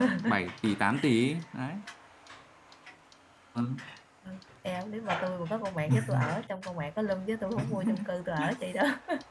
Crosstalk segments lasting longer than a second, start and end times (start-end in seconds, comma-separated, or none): none